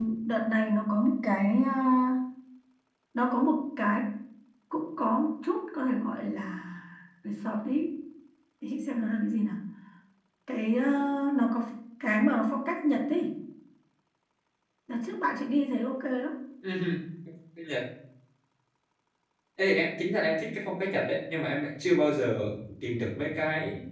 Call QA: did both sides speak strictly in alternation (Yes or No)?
Yes